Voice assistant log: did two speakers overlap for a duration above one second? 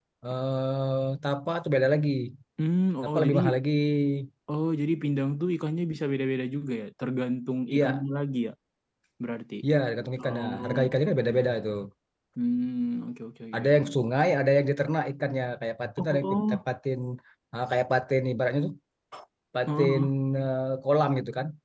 Yes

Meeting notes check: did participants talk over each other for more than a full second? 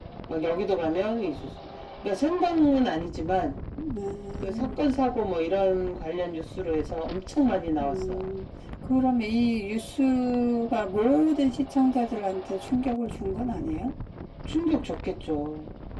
No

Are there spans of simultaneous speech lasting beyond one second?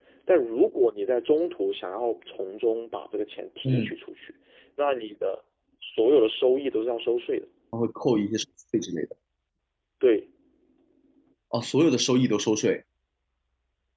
No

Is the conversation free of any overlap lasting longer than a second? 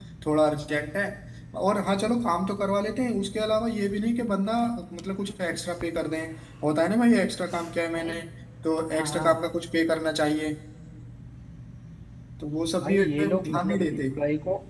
No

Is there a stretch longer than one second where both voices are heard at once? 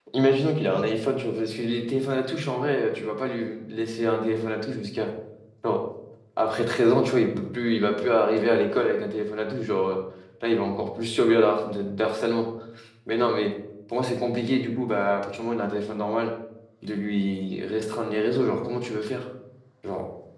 No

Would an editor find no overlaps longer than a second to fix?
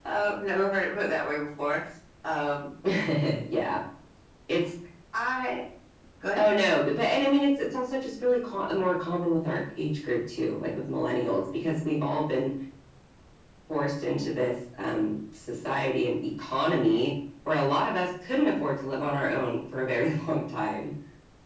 Yes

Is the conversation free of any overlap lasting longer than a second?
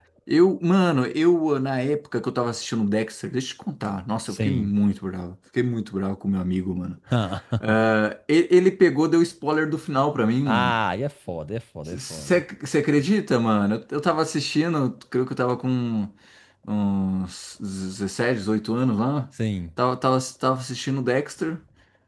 Yes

